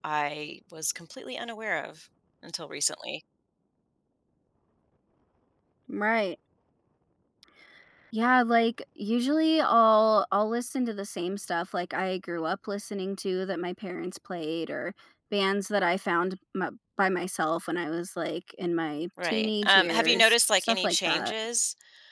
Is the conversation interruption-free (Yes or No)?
No